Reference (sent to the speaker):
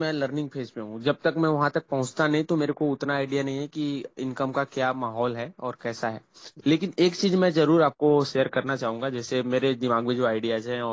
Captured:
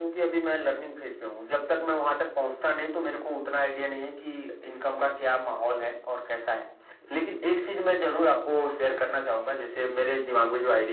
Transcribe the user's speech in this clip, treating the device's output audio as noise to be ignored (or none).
none